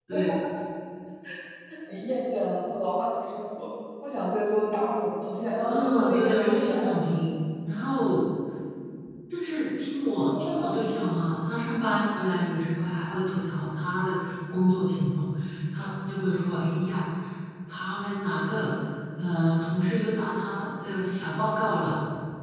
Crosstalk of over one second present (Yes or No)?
Yes